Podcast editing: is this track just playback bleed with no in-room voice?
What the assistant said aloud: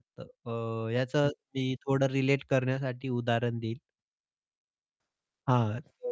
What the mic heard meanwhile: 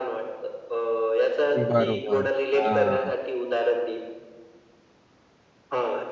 No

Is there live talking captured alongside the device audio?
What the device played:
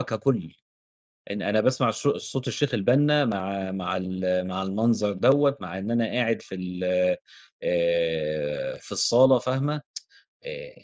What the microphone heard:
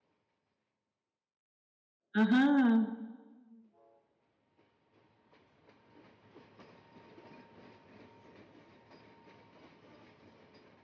Yes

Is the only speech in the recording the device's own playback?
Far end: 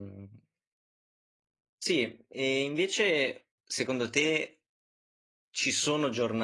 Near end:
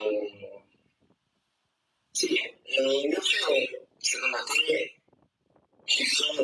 Yes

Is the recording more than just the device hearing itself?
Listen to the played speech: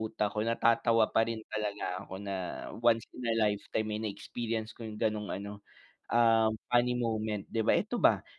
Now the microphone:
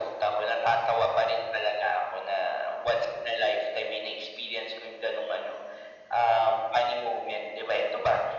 No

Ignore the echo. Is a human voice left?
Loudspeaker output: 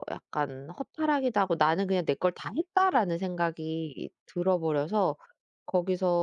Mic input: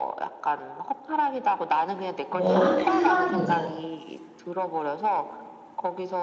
Yes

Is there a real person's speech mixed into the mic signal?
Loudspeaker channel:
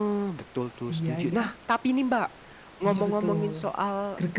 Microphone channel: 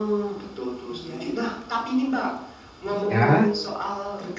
Yes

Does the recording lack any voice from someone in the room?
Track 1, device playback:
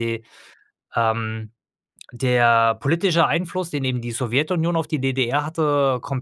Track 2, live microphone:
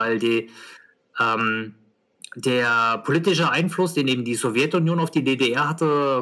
Yes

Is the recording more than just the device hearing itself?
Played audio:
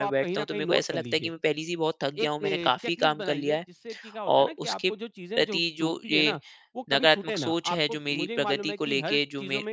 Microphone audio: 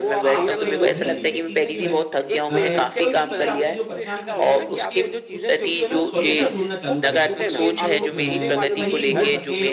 Yes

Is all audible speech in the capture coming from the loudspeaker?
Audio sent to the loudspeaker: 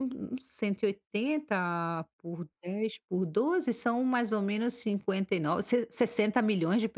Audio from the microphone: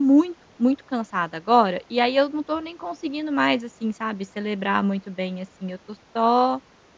No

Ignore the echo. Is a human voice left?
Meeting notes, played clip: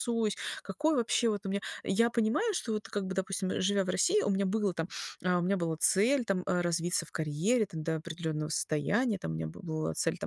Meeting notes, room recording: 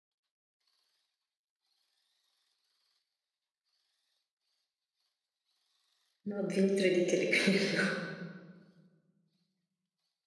Yes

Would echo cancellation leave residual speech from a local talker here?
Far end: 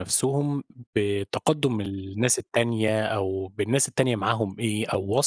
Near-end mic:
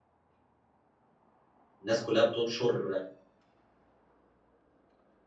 Yes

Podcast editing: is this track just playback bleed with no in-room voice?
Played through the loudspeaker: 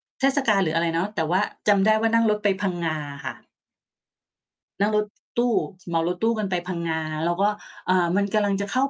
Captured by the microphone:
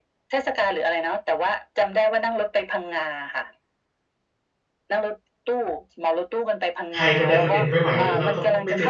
No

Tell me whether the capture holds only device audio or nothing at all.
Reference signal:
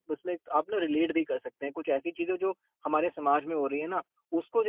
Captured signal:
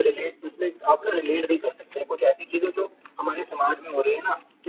Yes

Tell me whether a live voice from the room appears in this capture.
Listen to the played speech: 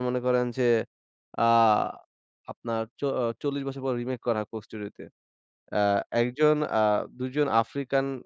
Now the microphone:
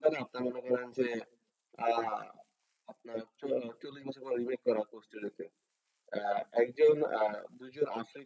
No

